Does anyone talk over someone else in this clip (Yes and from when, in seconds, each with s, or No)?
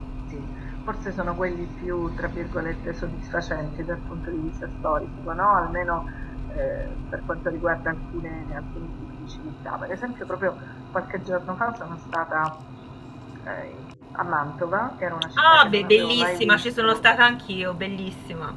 Yes, from 15.4 s